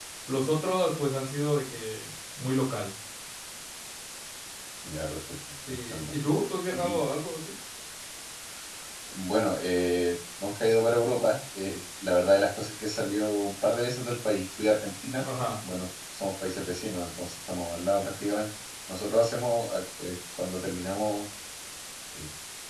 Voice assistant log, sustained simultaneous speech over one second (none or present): none